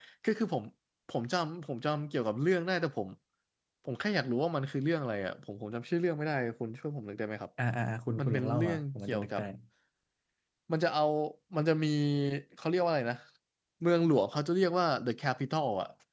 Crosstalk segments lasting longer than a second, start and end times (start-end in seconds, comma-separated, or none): 8.2-9.4